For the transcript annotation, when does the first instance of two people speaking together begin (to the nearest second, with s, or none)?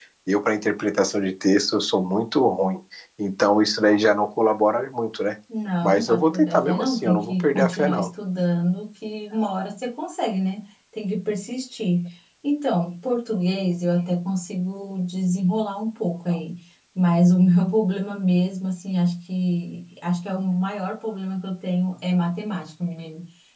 6 s